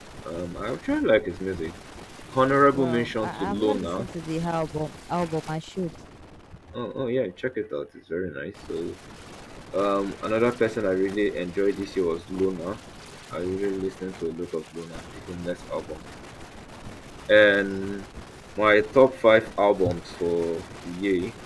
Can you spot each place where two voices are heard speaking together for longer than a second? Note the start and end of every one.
2.7-4.1

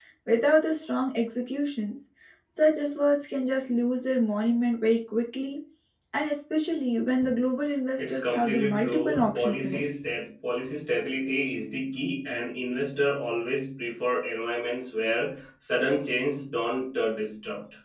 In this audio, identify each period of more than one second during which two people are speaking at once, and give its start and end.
8.0-9.8

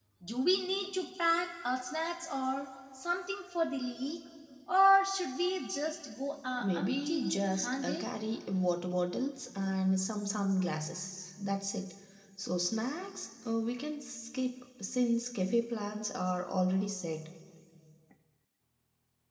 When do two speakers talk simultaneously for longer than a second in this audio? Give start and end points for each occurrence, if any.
6.6-8.0

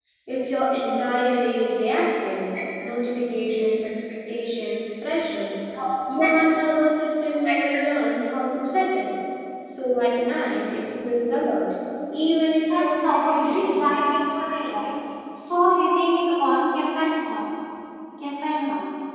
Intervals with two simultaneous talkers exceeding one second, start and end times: 12.7-13.9

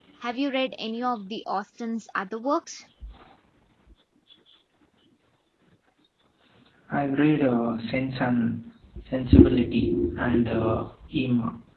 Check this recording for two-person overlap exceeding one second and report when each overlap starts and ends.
none

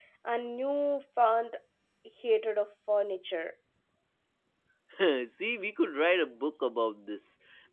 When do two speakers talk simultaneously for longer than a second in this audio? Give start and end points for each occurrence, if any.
none

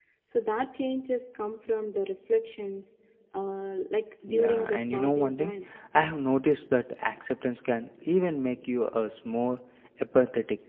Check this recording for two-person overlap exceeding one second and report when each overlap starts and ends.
4.3-5.5

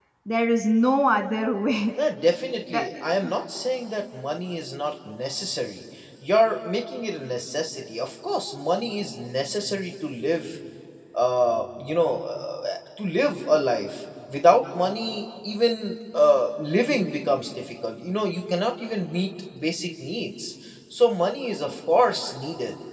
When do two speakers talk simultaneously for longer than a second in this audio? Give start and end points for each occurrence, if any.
none

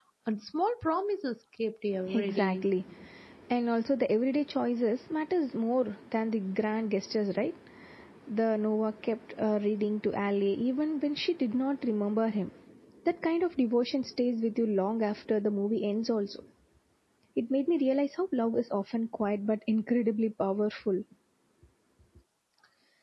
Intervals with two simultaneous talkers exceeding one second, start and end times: none

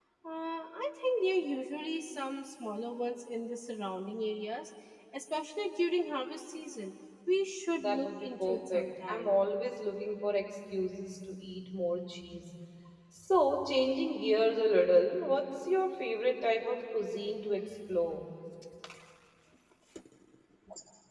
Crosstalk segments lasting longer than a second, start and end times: 7.8-9.3

